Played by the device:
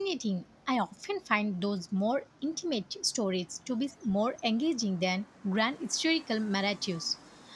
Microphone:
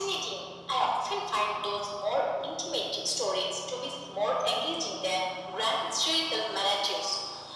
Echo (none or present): present